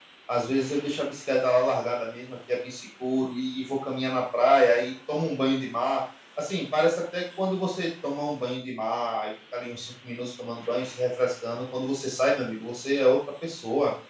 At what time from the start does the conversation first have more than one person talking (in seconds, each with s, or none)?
none